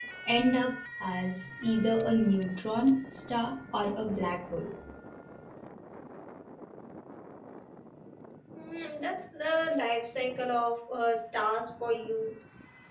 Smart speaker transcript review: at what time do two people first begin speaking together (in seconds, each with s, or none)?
none